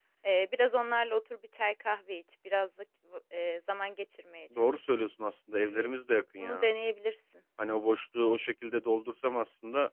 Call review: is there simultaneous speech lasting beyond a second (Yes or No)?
No